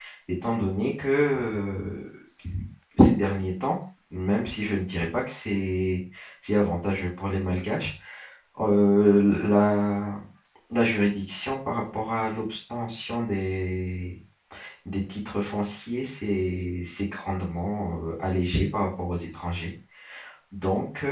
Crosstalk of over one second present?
No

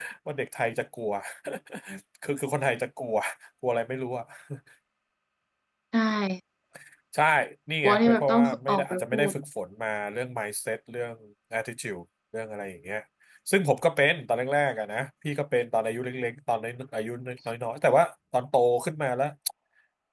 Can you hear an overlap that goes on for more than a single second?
Yes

